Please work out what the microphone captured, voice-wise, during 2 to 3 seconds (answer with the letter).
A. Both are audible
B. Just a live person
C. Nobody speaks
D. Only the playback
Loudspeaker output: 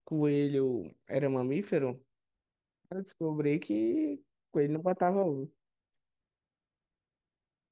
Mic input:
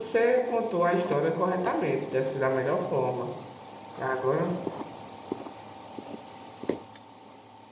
B